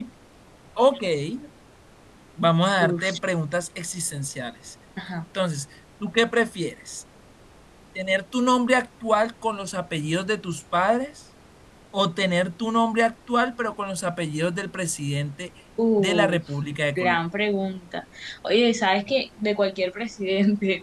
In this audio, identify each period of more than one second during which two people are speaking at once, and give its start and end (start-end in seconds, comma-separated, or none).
none